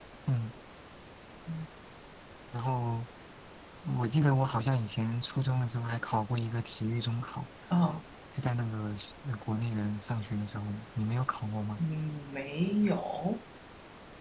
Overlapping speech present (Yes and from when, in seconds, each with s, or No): No